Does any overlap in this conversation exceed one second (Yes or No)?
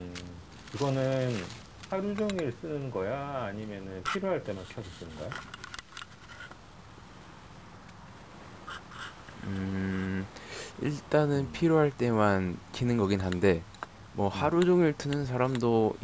No